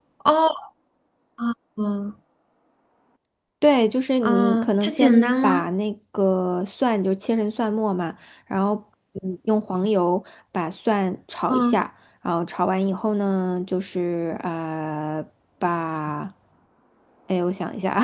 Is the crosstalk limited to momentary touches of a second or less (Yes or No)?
No